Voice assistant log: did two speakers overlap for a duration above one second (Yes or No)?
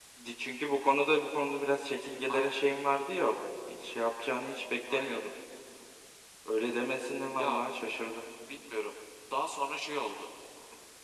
No